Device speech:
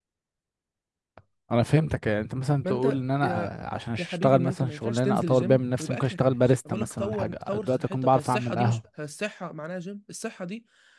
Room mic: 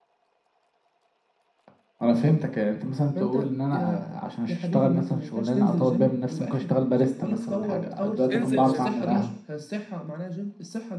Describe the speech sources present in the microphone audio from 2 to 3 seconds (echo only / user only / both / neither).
echo only